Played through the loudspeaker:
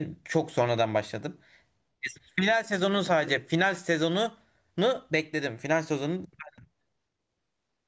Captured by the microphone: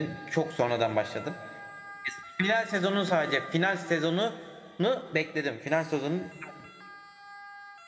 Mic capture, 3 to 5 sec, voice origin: echo only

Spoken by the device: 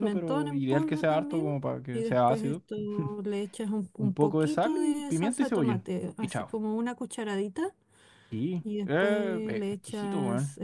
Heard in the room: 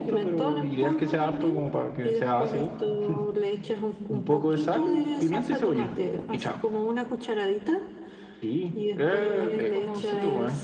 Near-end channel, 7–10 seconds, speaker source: both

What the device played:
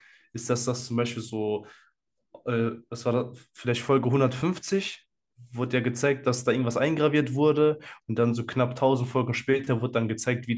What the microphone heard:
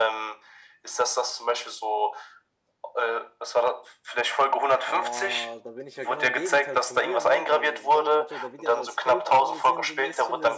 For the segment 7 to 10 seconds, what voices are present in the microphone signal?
both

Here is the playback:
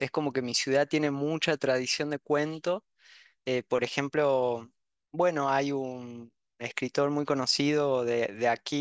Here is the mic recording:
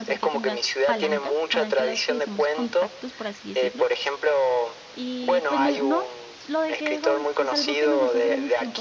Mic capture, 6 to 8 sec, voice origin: both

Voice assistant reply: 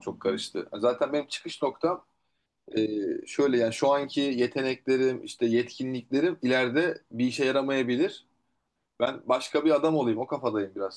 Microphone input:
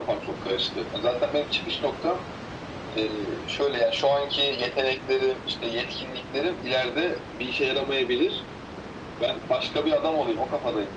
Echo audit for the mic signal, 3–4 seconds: echo only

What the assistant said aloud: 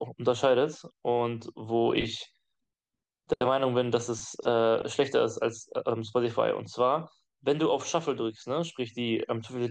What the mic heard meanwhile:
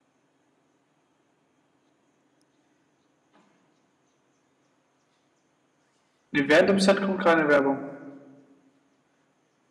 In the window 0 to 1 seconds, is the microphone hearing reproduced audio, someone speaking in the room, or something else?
neither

